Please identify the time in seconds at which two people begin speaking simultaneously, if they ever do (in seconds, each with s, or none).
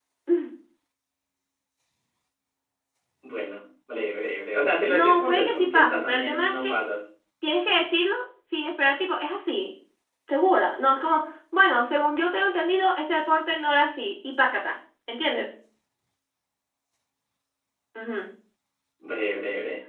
4.9 s